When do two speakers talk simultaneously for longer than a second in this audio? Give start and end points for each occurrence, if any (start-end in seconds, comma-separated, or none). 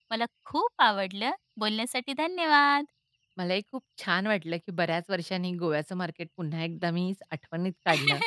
none